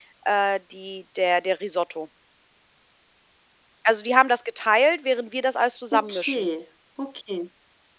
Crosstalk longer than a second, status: none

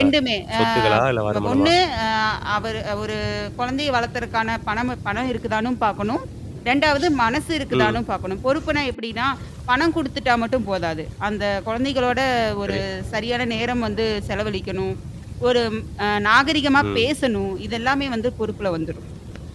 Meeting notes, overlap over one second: none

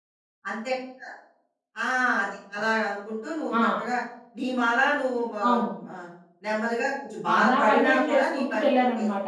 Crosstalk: present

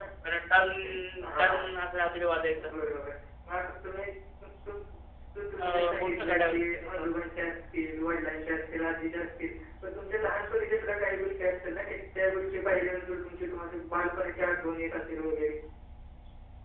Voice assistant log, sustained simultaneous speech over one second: present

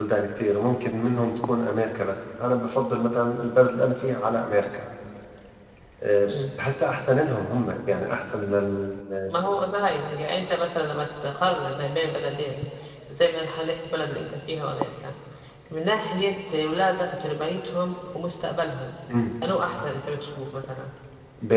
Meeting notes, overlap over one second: none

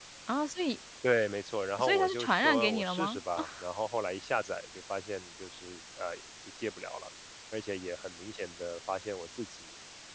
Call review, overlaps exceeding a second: present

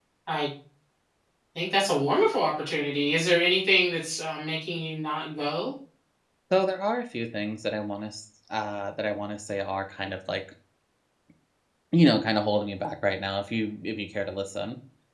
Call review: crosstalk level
none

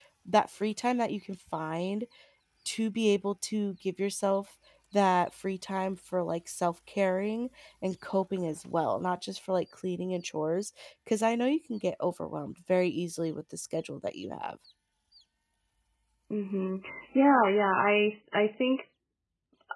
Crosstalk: none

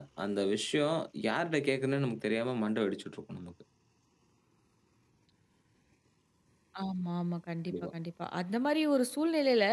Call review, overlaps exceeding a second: none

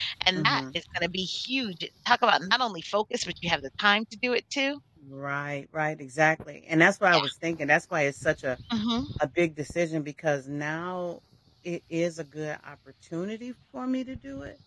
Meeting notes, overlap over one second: none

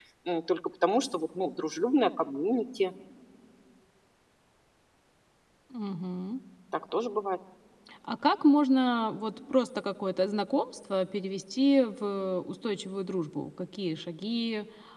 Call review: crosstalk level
none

